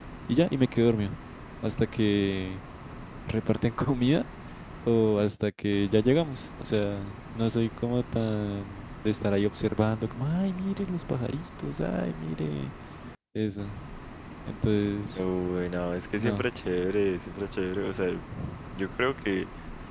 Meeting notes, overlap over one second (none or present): none